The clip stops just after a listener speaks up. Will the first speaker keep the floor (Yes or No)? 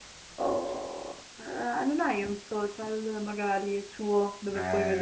No